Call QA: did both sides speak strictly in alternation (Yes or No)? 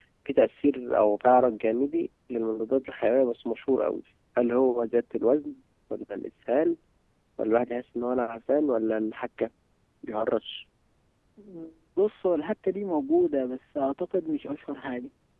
Yes